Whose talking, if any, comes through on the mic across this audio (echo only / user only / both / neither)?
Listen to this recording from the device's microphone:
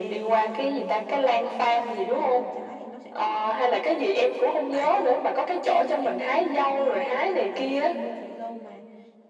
both